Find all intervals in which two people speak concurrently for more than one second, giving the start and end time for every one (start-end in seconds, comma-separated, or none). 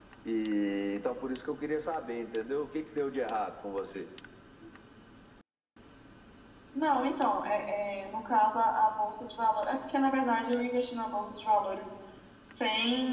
none